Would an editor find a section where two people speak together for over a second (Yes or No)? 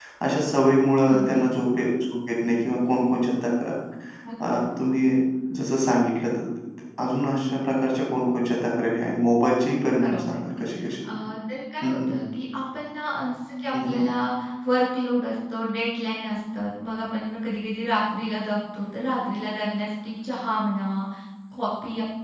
No